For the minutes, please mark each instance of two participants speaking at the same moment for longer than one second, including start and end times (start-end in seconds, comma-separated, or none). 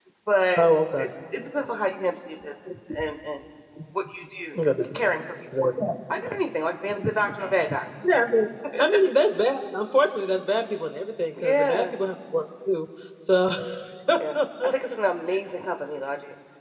none